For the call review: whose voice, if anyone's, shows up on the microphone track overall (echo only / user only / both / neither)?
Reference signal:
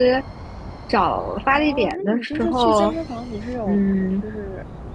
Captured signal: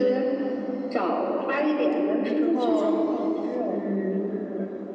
echo only